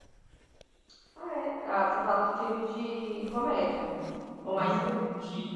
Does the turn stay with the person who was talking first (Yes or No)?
No